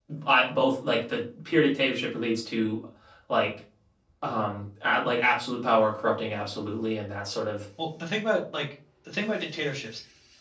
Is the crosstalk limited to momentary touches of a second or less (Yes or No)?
Yes